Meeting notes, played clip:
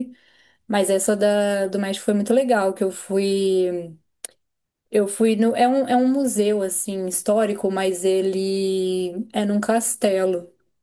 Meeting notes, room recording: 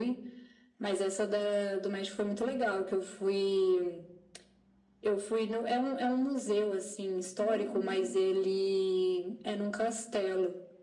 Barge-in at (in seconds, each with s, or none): 7.4 s